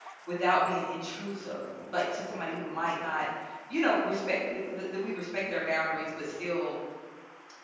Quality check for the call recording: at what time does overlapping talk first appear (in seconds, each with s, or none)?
none